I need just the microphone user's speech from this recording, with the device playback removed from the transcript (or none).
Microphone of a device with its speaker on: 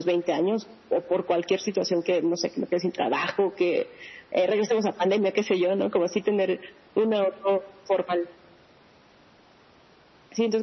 none